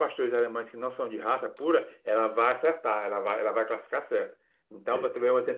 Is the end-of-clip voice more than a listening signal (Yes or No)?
No